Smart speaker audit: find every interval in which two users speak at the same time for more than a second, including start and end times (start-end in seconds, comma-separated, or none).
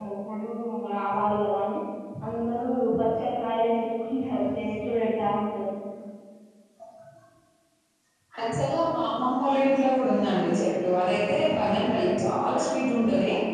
none